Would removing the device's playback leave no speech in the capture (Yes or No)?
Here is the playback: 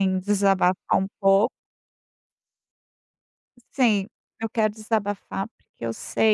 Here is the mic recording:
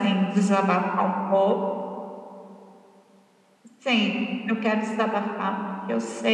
Yes